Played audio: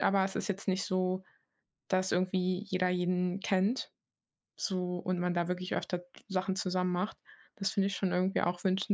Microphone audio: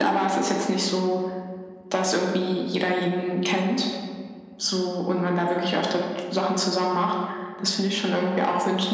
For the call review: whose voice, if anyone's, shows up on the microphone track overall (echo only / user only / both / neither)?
echo only